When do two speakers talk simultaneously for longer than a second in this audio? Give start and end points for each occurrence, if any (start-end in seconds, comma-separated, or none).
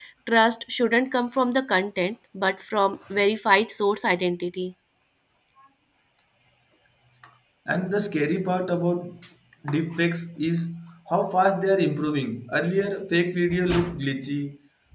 none